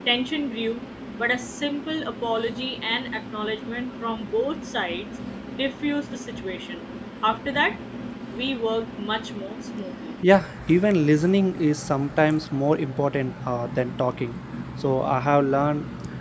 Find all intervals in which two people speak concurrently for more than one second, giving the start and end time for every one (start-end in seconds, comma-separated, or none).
none